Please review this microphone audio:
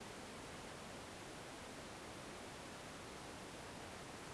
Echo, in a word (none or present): none